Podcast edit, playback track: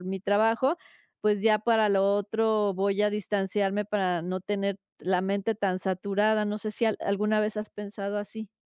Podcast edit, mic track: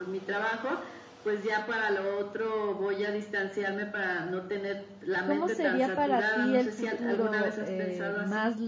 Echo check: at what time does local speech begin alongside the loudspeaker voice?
5.2 s

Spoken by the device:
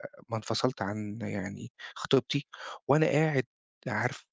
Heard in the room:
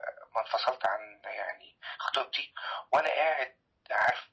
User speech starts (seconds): none

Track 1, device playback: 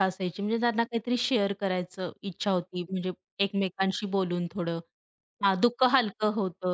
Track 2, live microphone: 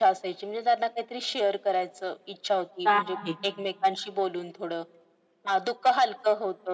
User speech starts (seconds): 2.8 s

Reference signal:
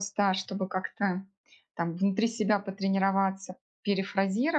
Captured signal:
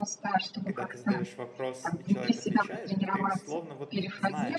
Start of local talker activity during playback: 0.6 s

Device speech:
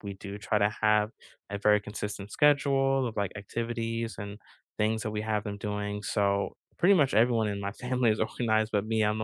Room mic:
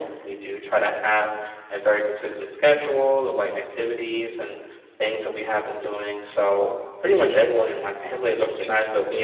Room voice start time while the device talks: none

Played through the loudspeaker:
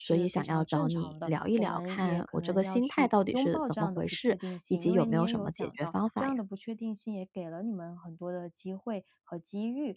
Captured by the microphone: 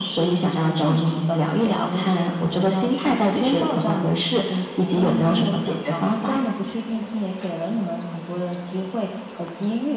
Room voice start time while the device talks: none

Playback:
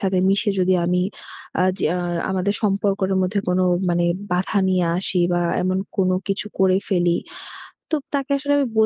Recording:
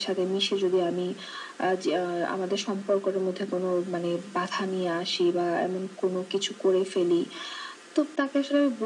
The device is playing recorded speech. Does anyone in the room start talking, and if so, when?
none

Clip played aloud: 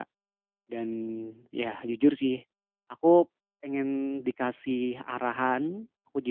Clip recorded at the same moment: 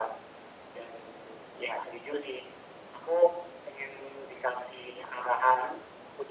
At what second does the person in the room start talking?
none

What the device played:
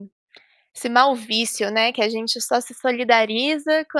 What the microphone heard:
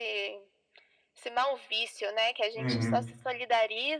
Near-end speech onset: 2.5 s

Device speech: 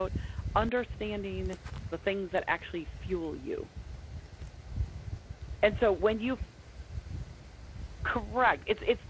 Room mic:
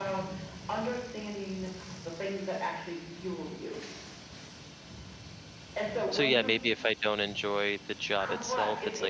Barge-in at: 6.1 s

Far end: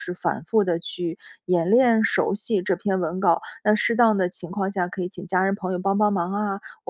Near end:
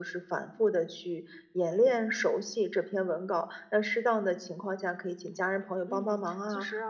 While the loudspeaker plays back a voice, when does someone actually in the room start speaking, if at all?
5.9 s

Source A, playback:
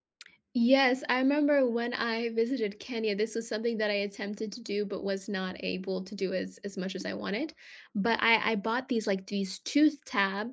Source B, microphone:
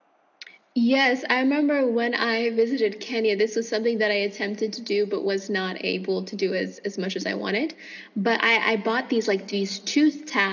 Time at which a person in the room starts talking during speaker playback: none

